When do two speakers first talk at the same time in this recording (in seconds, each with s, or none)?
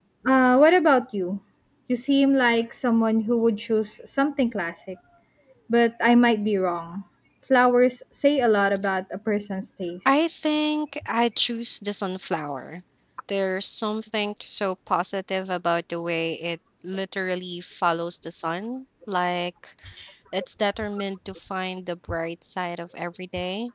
none